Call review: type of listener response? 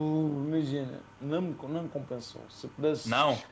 listening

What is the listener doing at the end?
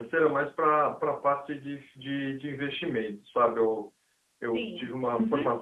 listening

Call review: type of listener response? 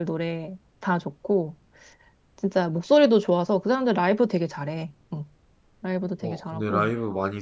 taking over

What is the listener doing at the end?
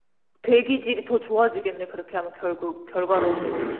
taking over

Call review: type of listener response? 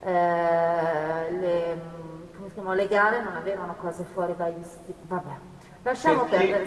taking over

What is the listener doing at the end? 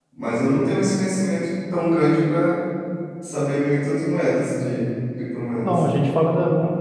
taking over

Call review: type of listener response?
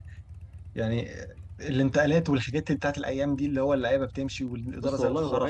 taking over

